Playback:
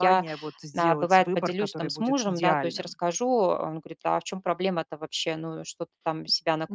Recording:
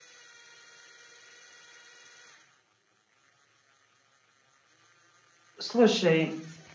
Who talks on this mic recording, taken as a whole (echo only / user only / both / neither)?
user only